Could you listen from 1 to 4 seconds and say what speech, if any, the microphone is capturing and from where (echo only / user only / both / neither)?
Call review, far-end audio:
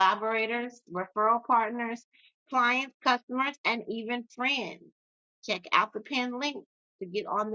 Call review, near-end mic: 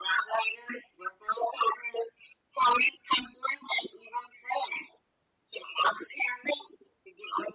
echo only